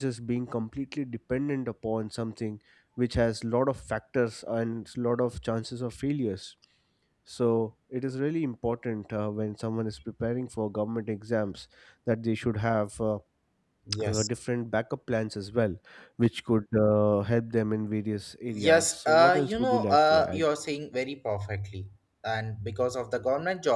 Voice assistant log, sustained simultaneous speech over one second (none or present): present